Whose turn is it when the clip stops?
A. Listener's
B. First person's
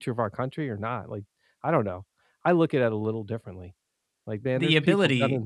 B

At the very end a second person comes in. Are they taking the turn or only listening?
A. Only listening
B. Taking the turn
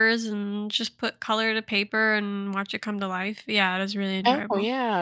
B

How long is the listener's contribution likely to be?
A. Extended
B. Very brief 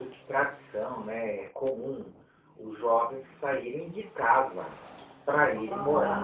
A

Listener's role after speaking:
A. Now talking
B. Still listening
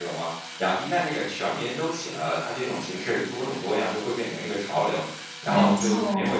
B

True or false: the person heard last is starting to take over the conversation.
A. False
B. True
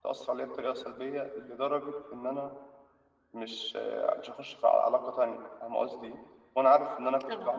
B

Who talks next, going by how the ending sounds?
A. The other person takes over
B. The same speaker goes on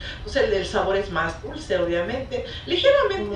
B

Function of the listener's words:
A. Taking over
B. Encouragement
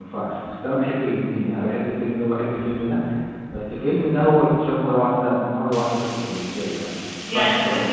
A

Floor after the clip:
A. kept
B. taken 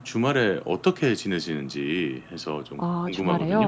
B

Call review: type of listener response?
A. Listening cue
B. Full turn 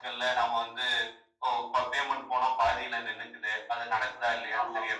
A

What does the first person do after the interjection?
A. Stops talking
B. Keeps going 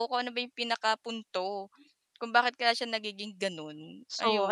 A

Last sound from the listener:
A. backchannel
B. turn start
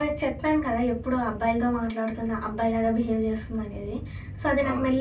A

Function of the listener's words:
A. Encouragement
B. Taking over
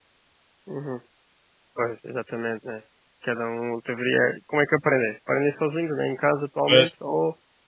A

